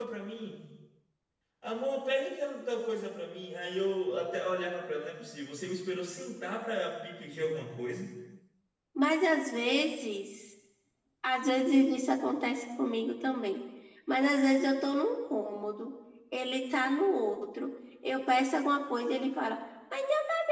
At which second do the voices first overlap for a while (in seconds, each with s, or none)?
none